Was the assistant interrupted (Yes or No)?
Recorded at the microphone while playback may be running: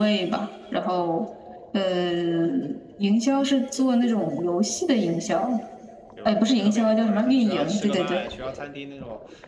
Yes